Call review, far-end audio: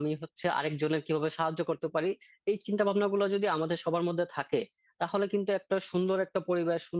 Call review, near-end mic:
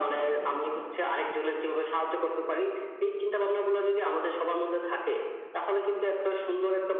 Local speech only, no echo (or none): none